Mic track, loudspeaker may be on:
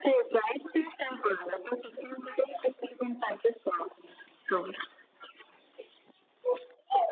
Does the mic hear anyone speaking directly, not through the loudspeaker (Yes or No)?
No